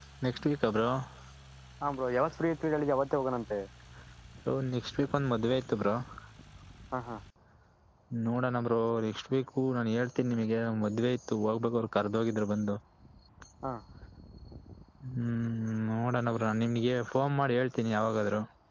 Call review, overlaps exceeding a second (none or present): none